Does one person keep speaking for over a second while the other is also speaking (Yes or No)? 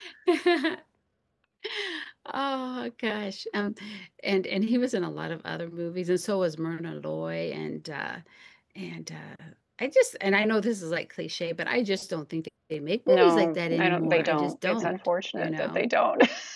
Yes